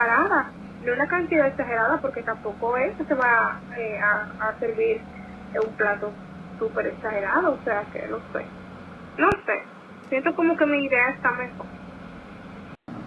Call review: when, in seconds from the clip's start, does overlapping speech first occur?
none

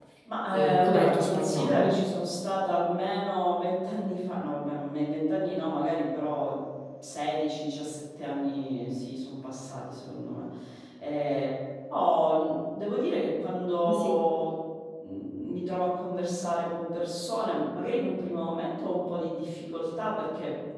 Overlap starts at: 1 s

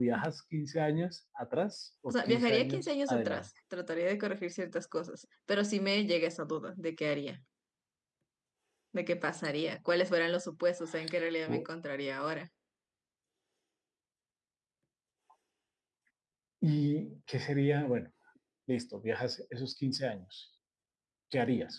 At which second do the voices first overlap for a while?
2 s

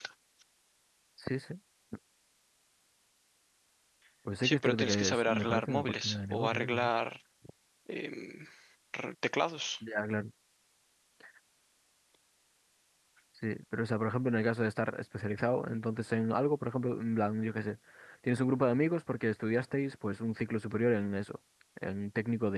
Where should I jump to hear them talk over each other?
4 s

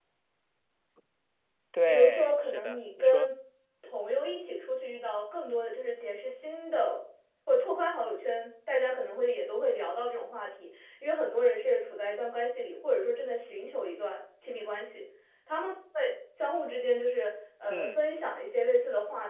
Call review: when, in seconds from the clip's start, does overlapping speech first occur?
2 s

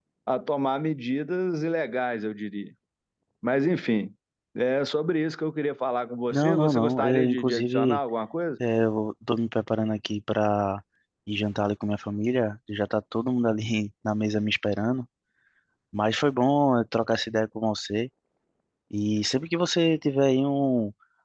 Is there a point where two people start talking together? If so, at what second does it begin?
6 s

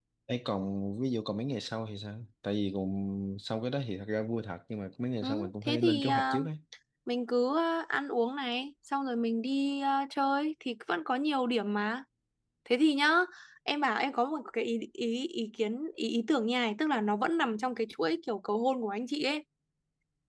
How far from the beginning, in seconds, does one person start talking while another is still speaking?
5 s

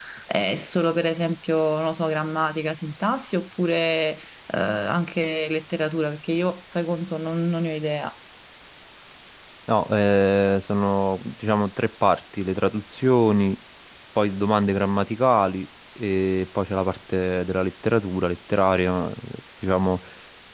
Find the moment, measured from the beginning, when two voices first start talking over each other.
none

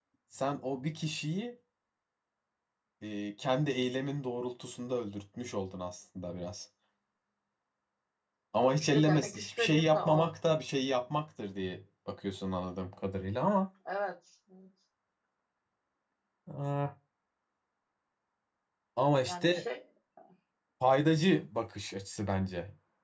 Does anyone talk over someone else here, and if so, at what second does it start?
9 s

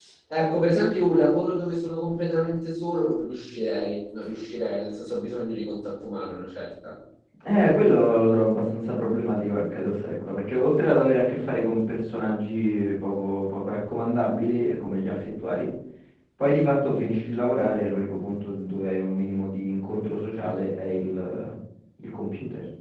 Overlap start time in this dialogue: none

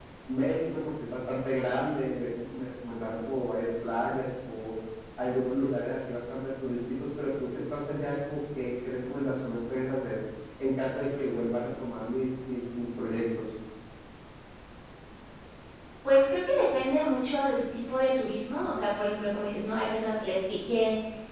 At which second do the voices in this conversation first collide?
none

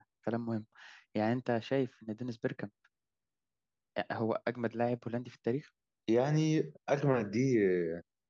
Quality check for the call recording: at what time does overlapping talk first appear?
none

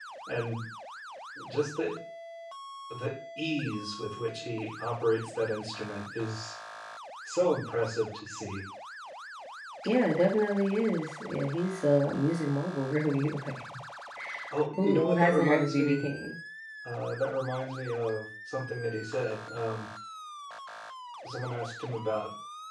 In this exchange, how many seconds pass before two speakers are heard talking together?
15 s

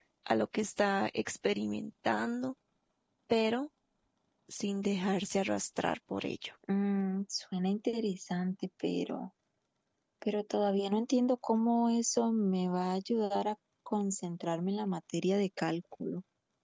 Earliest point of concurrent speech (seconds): none

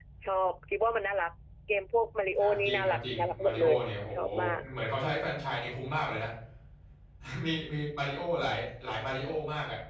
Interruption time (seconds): 2 s

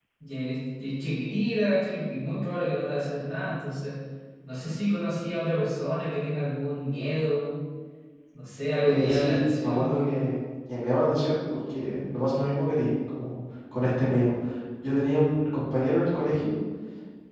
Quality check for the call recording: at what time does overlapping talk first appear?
9 s

